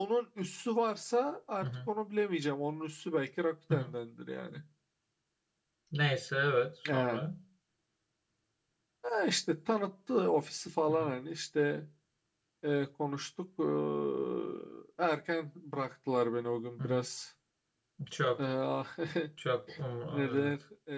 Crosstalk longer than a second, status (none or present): none